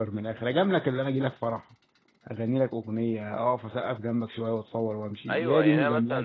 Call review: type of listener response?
taking over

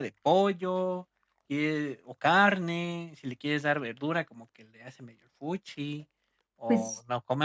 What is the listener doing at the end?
listening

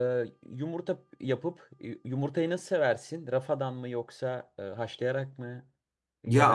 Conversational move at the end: taking over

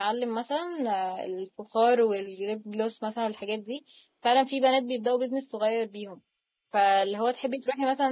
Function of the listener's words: listening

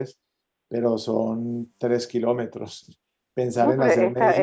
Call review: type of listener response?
taking over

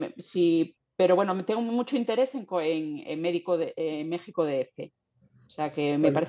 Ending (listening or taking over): listening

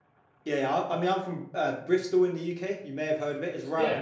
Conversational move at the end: listening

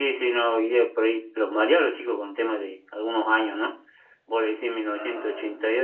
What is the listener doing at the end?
listening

